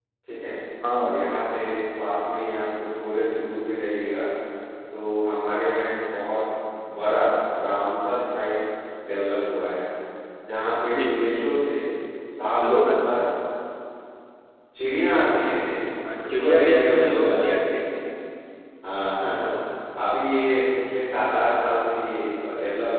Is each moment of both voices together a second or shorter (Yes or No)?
No